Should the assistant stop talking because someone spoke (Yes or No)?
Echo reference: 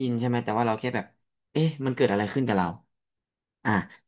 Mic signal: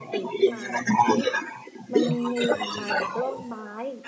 Yes